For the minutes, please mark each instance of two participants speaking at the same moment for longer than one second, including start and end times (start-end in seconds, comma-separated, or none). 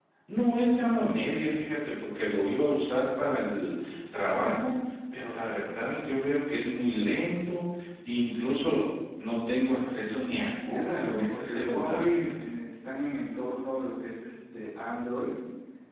10.7-12.5